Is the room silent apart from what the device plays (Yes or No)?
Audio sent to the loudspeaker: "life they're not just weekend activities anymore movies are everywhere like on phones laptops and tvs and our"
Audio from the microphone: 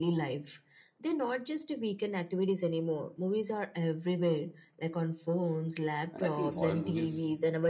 No